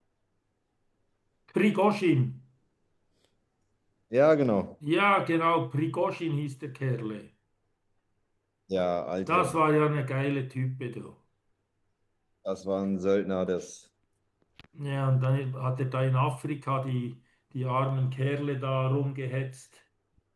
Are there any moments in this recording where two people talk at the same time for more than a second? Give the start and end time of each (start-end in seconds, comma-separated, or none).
none